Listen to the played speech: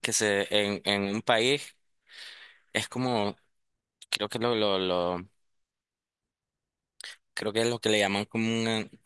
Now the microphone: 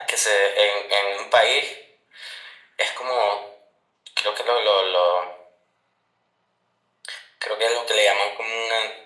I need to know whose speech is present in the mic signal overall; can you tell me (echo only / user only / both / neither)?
echo only